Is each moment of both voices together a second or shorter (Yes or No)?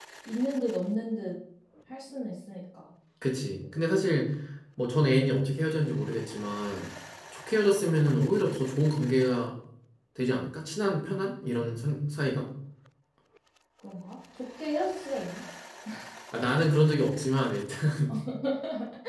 Yes